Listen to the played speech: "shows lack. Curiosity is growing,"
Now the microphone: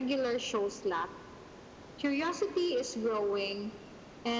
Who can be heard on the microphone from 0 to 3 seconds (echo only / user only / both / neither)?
echo only